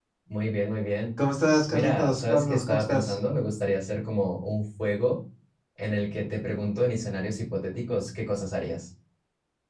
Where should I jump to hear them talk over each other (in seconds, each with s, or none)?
1.7 s